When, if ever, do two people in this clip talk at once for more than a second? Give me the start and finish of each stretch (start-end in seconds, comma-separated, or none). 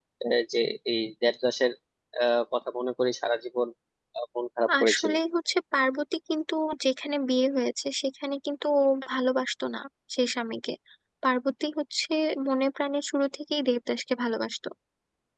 none